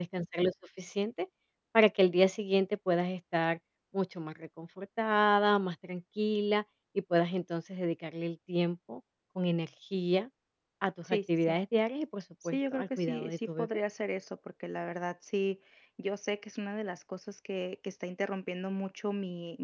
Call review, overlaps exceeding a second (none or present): present